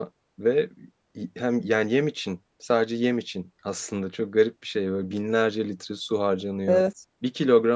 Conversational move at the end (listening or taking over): listening